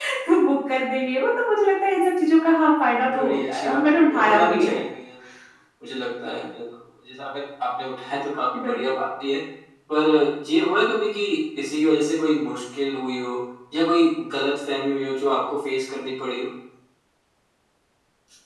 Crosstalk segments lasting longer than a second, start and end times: 3.2-4.8

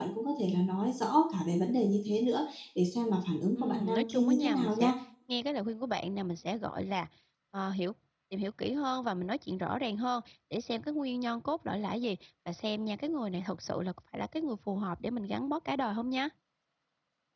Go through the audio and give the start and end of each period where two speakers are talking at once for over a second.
3.5-4.9

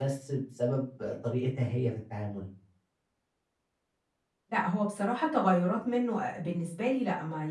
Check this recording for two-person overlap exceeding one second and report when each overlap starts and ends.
none

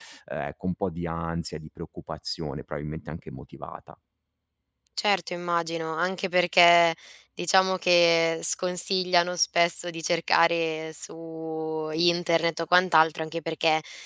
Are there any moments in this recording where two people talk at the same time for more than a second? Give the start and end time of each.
none

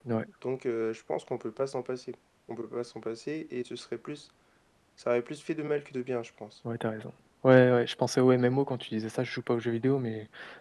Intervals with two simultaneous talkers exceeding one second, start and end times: none

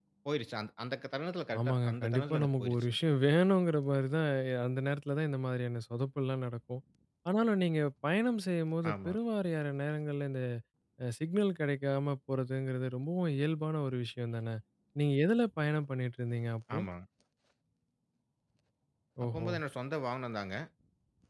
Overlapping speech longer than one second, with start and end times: 1.6-3.0

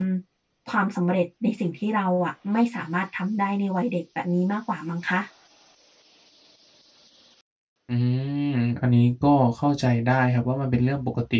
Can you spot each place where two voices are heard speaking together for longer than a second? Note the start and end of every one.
none

